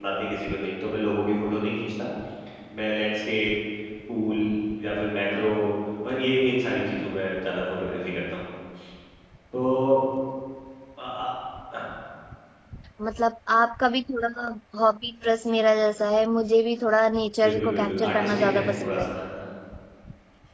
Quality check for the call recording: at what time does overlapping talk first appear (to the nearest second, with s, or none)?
17 s